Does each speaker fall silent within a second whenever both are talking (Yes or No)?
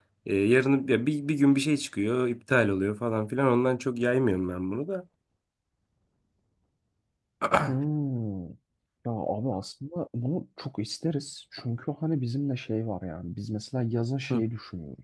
Yes